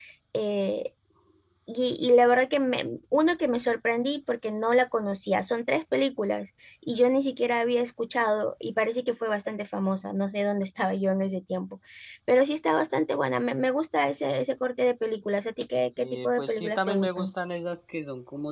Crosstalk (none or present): present